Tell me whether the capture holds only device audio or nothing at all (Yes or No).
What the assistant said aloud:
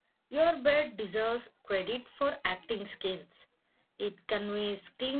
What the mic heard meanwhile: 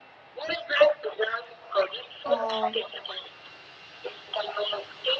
No